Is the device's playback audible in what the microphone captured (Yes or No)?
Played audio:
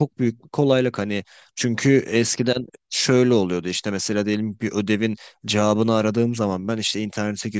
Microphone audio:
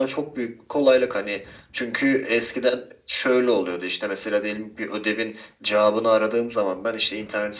Yes